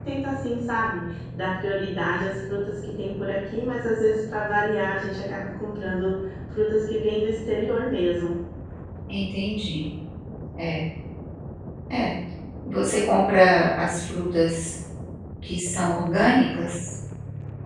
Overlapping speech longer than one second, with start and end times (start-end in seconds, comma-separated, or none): none